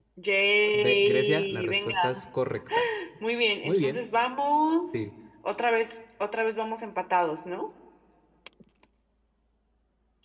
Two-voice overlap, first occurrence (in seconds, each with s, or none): 0.7 s